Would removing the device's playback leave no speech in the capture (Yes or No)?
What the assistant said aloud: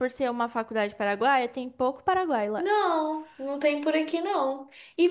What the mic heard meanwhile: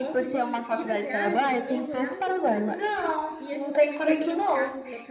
No